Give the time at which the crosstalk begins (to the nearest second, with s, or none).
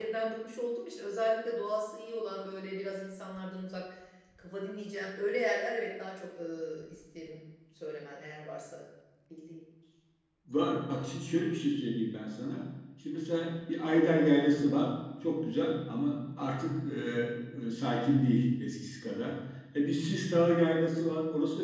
none